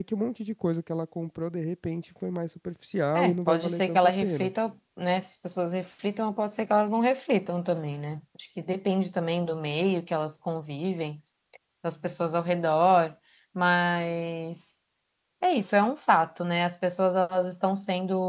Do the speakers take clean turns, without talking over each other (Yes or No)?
No